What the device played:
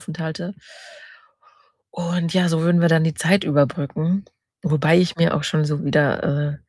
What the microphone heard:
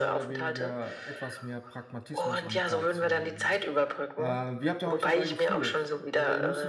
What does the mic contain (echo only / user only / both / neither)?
both